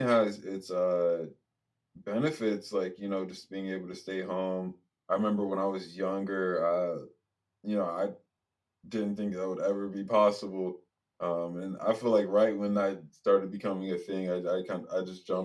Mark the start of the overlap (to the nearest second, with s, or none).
none